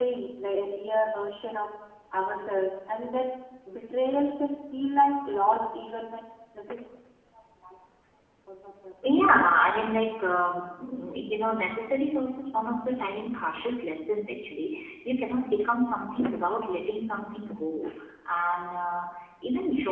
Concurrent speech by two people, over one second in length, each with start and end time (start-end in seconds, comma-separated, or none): none